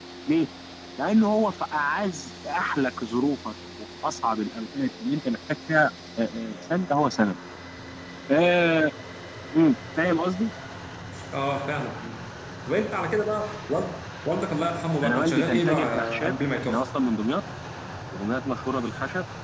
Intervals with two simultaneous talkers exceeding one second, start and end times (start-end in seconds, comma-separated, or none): 15.0-16.8